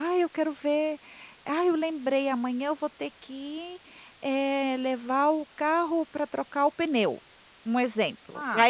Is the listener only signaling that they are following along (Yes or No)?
Yes